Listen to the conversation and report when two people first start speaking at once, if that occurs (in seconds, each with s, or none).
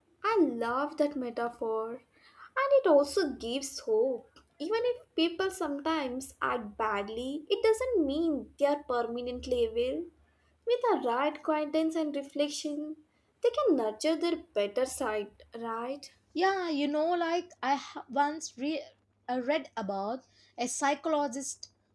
none